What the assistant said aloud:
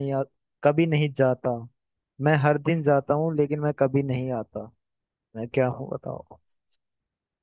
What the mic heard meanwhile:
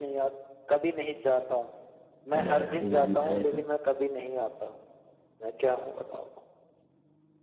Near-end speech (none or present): present